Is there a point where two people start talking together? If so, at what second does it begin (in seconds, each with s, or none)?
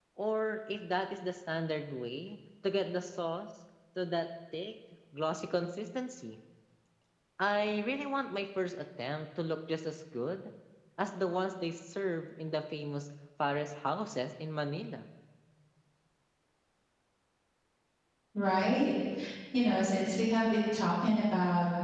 none